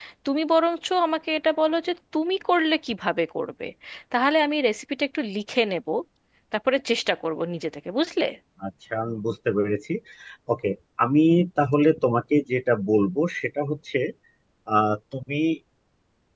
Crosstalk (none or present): none